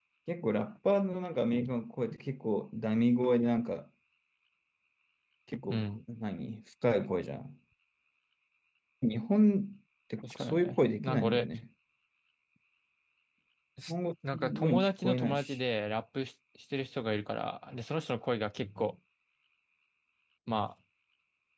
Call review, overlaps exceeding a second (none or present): present